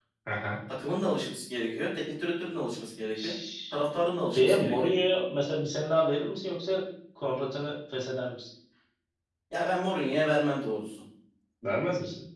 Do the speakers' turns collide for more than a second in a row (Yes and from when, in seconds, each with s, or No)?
No